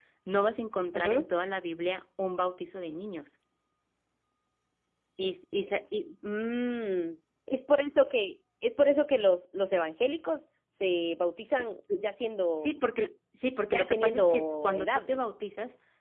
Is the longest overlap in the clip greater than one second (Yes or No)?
Yes